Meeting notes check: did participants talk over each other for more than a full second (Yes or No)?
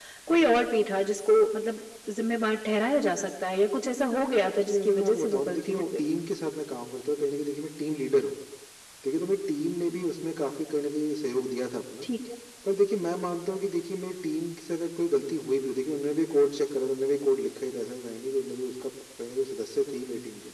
Yes